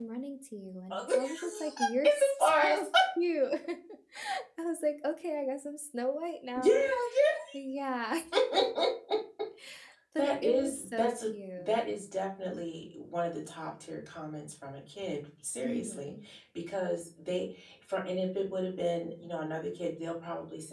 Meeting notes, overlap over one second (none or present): present